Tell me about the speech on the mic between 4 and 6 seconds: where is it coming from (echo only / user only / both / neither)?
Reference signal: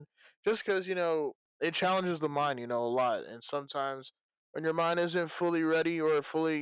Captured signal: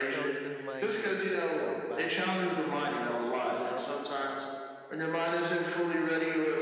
both